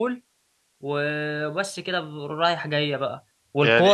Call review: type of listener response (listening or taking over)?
listening